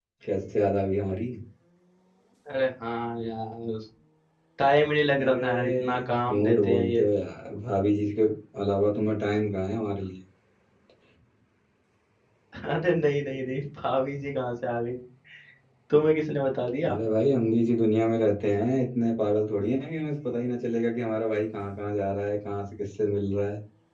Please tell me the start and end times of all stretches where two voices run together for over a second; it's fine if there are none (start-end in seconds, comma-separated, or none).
5.2-7.0